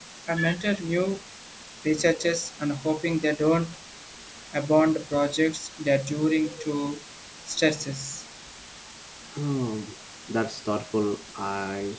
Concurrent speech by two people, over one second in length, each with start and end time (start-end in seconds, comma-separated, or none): none